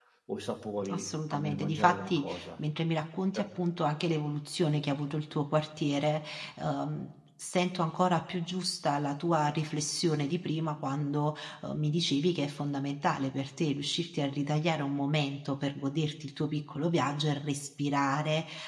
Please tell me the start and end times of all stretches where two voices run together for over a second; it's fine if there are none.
0.9-2.4

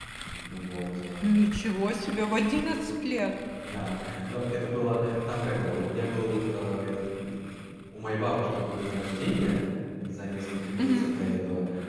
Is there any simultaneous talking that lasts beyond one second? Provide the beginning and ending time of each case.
none

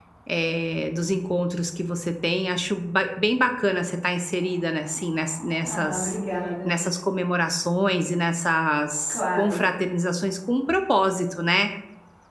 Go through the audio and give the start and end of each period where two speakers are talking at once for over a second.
none

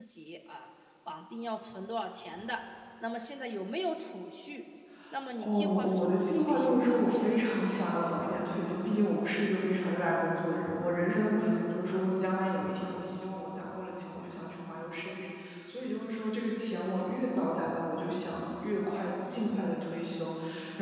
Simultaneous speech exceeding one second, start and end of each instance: 5.4-7.3

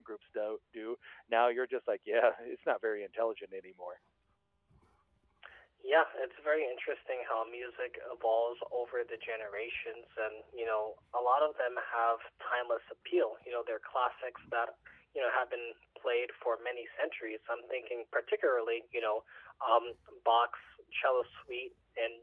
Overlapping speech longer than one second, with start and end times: none

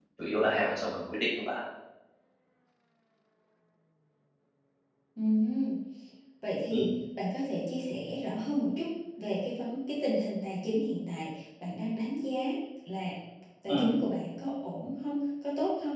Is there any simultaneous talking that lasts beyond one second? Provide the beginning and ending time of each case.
none

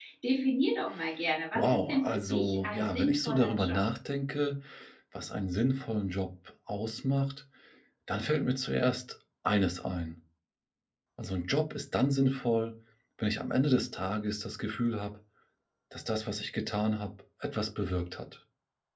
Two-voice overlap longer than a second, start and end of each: 1.6-3.8

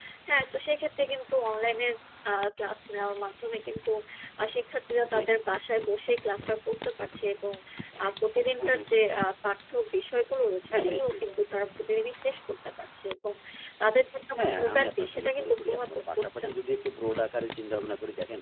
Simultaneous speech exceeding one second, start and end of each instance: 14.4-16.6

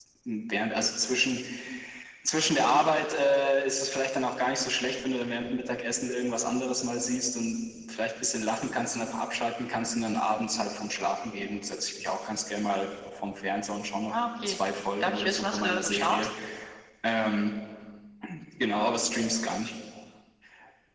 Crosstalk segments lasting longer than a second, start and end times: 15.0-16.3

